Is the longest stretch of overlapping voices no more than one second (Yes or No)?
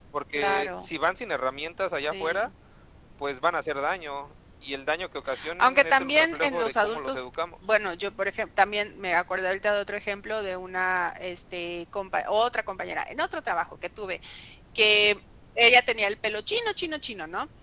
No